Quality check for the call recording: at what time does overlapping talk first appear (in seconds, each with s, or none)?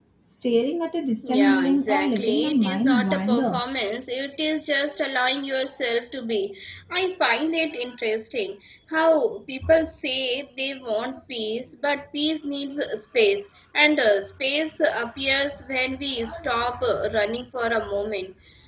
1.3 s